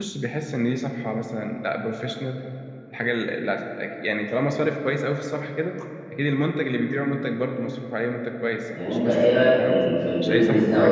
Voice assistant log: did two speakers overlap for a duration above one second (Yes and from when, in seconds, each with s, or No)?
Yes, from 8.7 s